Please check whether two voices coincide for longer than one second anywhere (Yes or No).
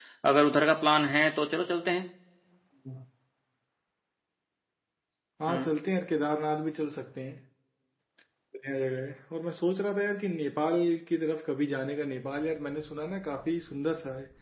No